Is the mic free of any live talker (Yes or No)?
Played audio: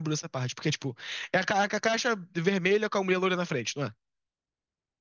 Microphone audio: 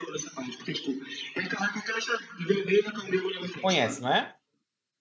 No